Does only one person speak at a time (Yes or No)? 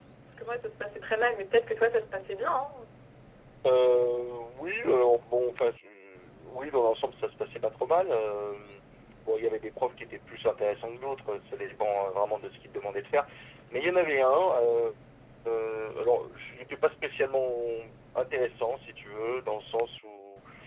Yes